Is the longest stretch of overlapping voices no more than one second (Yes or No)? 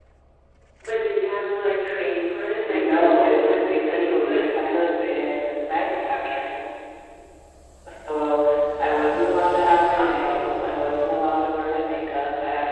No